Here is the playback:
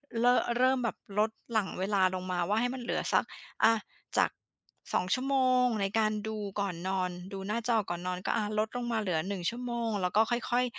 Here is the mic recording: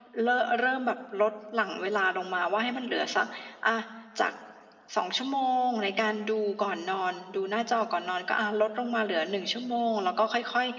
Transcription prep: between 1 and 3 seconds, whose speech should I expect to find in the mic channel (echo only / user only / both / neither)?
echo only